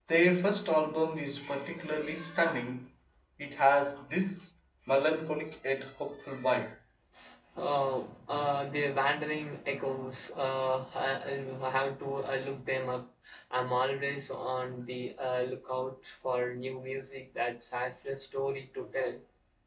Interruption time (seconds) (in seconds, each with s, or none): none